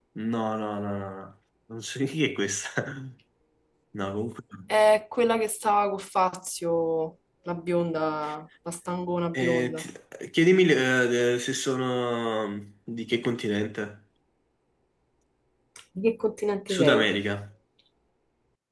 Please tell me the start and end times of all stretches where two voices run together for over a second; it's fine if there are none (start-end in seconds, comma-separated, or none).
none